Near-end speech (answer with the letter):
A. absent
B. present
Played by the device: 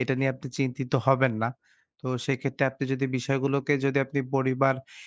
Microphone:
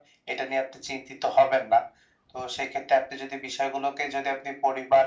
A